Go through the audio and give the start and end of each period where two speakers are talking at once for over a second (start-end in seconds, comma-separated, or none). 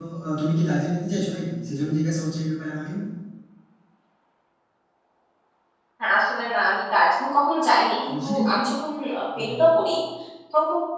none